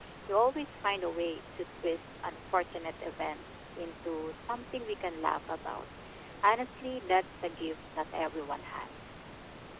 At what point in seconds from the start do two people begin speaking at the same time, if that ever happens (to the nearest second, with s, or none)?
none